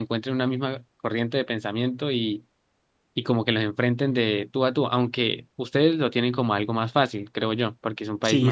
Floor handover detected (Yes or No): Yes